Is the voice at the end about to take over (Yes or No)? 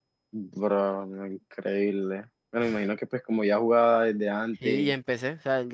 Yes